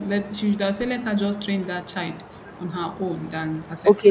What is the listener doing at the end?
taking over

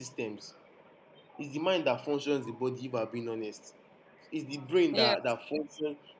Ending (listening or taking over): listening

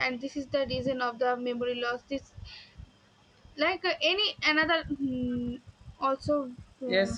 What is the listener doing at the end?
taking over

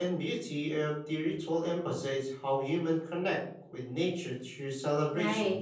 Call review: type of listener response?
taking over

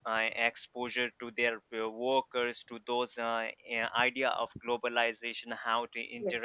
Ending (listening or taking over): listening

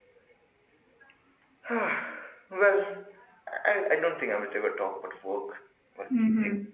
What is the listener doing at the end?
listening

